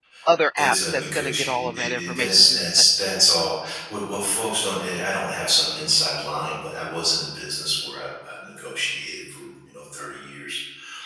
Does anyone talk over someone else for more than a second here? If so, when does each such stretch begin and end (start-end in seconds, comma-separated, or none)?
0.6-2.8